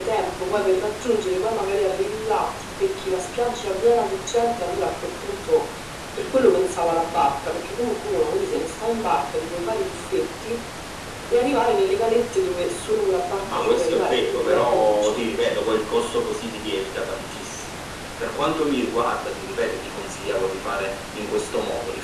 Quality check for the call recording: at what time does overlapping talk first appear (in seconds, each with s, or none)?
13.4 s